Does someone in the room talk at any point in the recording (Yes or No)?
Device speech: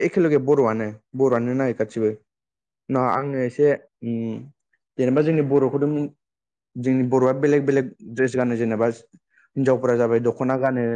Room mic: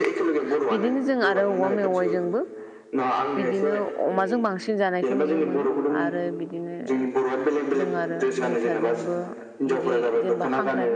Yes